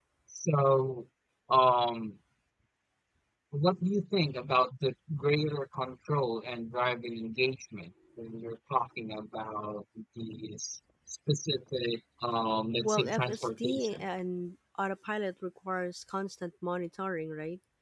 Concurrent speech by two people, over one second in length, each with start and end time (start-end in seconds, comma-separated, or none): 12.8-14.0